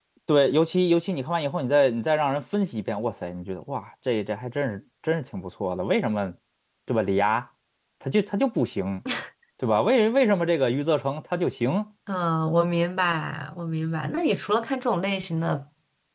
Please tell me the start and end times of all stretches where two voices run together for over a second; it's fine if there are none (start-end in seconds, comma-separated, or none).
none